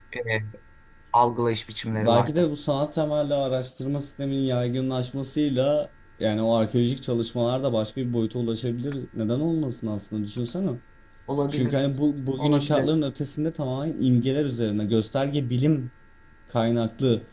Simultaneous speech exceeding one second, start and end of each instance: none

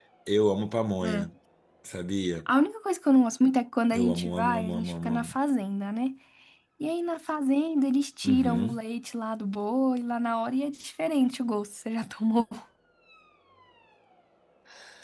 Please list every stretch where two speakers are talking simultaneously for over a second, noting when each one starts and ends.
3.9-5.3

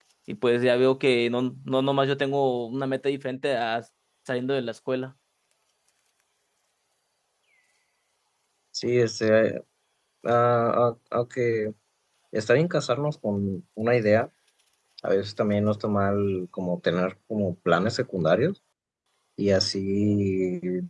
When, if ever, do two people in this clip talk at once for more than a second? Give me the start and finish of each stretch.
none

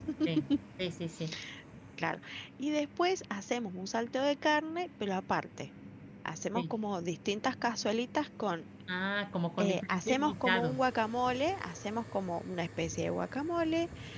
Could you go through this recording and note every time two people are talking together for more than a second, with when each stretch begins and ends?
9.6-10.8

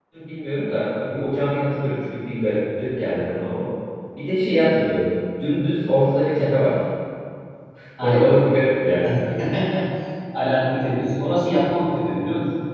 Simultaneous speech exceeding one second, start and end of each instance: none

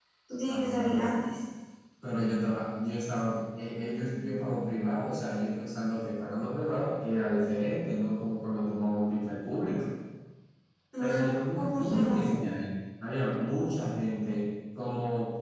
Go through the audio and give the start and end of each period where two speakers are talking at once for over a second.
11.0-12.3

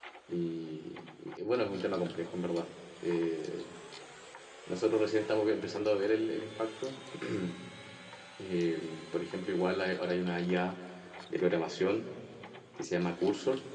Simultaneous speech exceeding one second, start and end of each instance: none

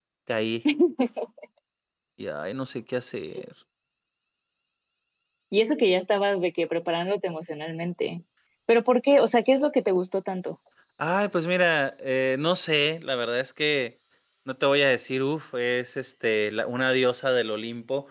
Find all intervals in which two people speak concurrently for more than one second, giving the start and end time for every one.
none

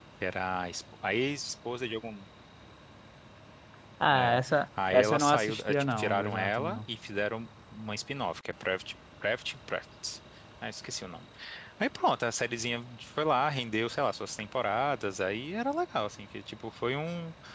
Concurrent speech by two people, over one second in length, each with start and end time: 4.1-6.8

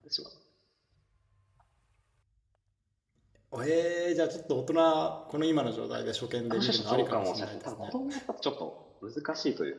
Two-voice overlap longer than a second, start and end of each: 6.5-7.9

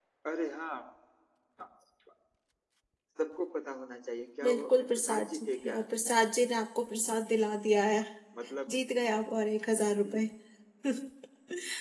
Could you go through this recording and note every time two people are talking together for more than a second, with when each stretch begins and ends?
4.4-5.8

